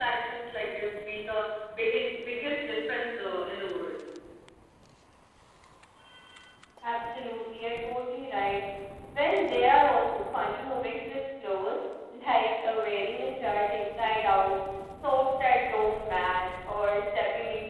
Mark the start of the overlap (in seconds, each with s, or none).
none